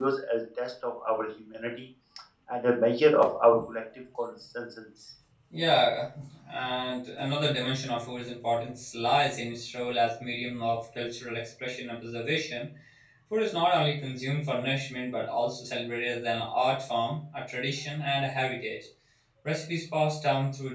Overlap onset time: none

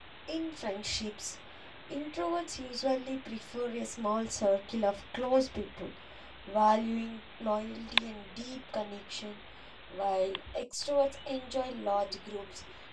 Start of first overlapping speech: none

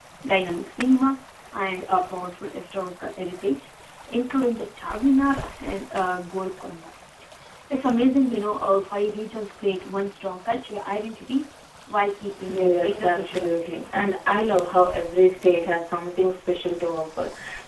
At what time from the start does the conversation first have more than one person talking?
12.5 s

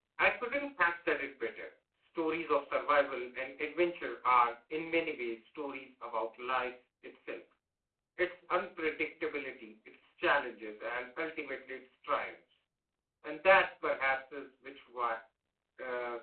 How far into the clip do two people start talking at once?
none

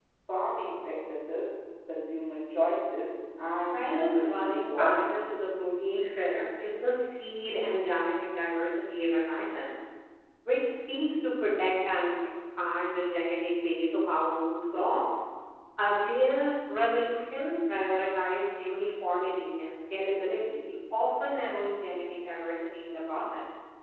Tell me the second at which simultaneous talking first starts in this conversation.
3.6 s

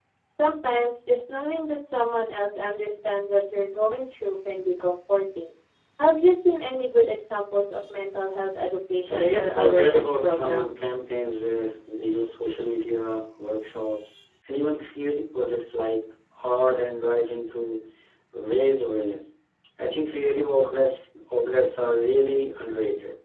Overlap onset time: 9.1 s

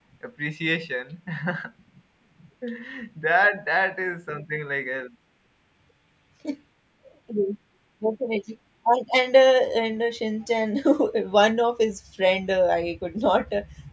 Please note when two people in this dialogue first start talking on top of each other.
none

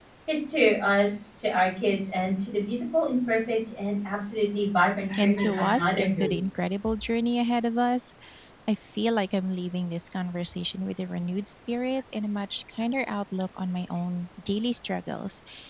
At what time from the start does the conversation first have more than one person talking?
5.1 s

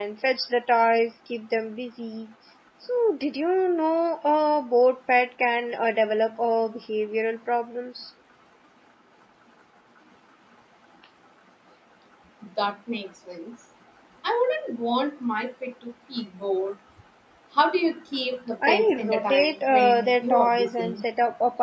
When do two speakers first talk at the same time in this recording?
18.6 s

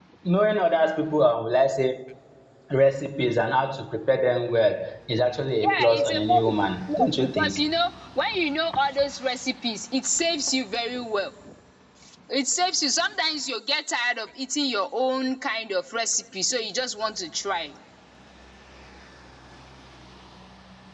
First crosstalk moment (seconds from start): 5.6 s

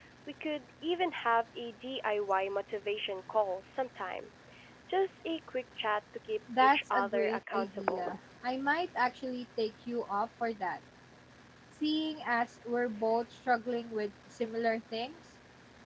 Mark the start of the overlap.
6.5 s

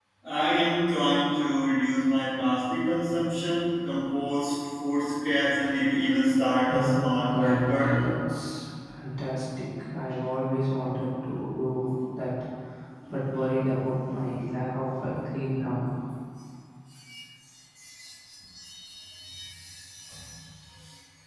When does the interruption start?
6.7 s

